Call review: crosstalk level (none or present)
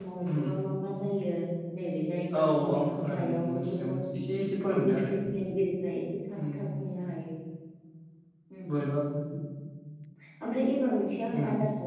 present